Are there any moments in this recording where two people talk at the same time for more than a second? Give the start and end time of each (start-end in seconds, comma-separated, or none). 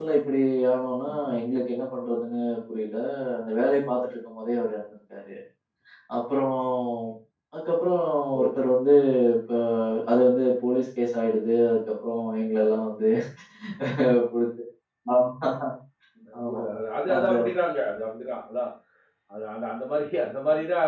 none